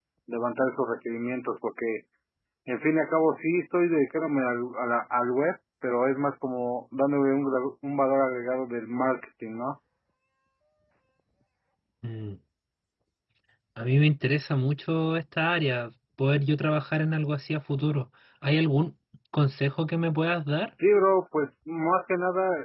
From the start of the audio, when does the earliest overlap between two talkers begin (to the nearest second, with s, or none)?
none